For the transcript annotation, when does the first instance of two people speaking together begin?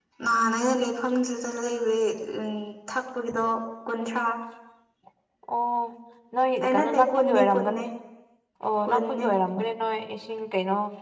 6.6 s

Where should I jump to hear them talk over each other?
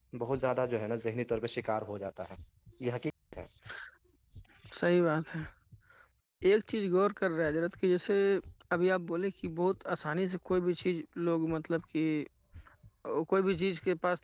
none

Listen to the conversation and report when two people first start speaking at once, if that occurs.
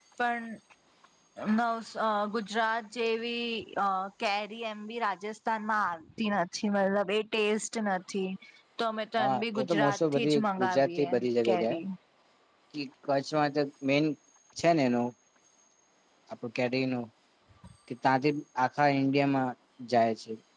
9.2 s

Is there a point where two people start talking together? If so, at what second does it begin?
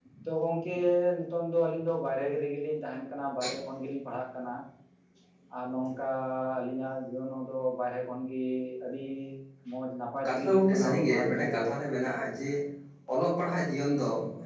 10.2 s

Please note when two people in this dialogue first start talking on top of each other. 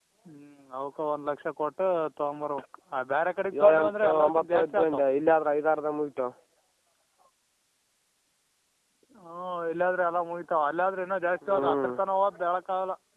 3.6 s

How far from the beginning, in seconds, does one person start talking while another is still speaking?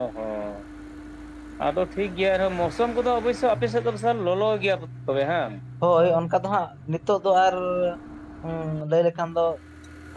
none

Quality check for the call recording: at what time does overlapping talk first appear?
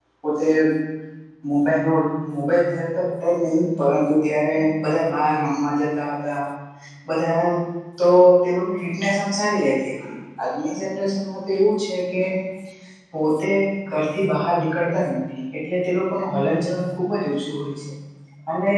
none

